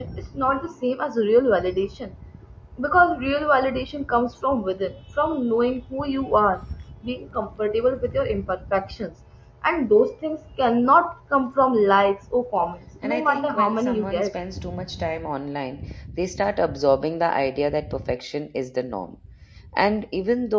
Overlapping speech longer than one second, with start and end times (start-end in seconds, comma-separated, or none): 13.0-14.3